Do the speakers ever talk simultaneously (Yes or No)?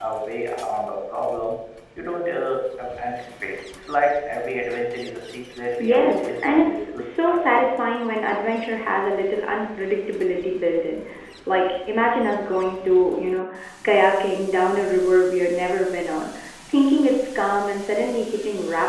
Yes